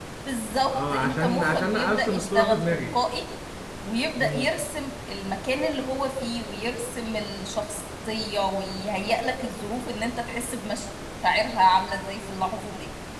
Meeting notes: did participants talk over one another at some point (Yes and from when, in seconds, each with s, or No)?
Yes, from 0.7 s